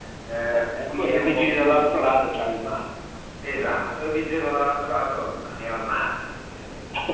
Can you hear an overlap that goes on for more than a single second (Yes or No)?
Yes